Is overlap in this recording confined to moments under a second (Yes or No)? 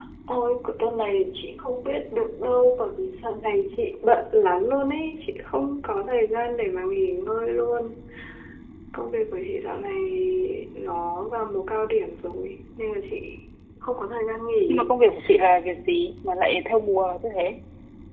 Yes